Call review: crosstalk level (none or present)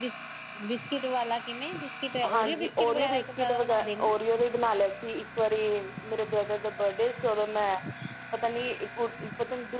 present